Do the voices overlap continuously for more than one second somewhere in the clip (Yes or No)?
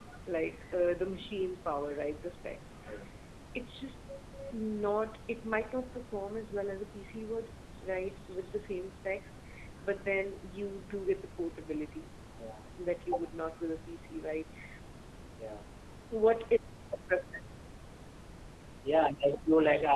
No